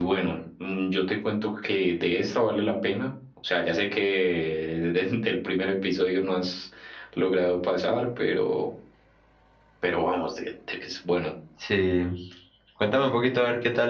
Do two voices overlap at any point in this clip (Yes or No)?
No